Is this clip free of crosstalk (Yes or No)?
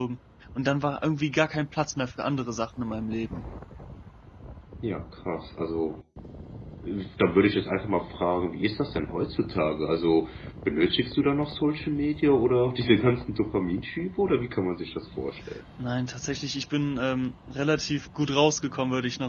Yes